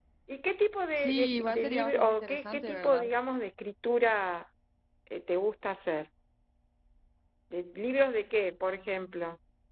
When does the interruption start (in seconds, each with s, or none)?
1.0 s